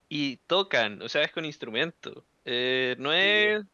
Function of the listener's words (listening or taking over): listening